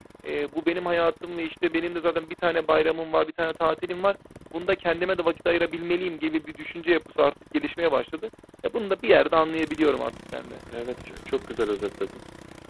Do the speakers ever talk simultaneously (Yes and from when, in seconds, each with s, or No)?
No